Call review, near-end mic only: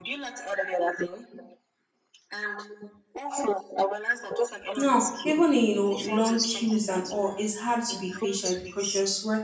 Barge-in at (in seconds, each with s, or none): 4.7 s